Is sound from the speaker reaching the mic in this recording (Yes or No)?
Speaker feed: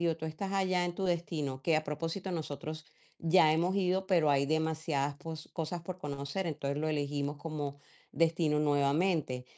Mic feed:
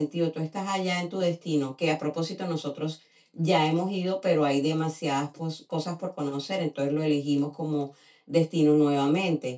Yes